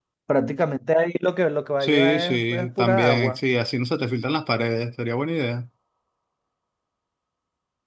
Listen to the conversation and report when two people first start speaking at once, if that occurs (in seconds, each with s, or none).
1.8 s